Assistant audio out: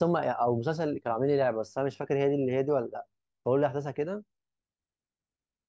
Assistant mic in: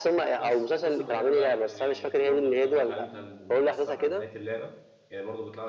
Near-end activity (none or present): present